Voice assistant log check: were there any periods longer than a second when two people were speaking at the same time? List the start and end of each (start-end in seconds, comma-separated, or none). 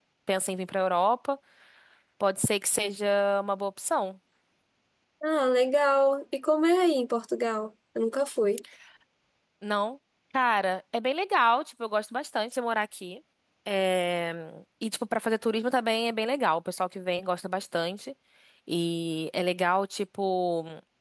none